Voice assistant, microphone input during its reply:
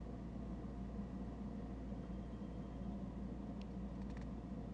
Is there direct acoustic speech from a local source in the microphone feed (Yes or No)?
No